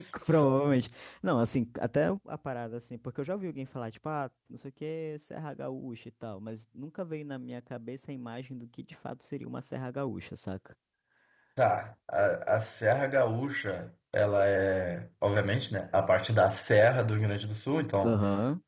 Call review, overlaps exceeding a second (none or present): none